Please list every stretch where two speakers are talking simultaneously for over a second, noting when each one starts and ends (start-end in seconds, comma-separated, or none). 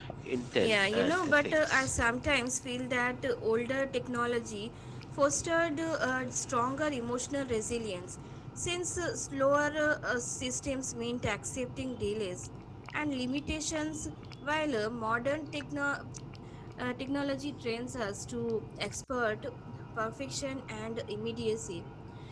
0.6-1.9